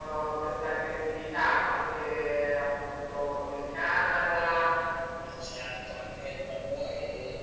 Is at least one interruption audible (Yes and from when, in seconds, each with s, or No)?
No